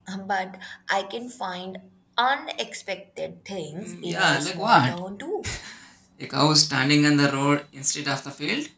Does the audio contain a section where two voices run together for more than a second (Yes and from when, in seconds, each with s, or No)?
Yes, from 3.8 s